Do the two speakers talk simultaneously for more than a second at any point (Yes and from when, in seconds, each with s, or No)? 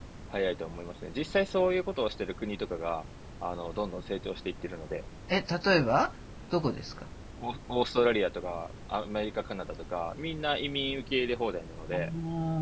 No